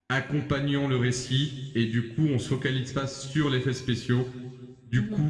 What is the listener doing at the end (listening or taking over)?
listening